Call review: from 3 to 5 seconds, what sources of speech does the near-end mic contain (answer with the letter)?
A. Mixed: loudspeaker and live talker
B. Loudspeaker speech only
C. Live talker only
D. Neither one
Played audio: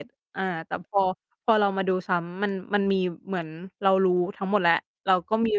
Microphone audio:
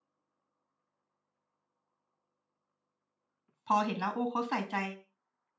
C